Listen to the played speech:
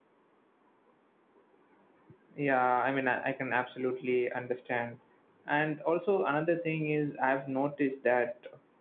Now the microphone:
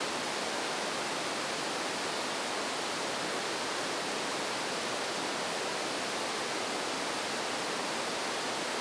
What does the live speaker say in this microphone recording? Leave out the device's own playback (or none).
none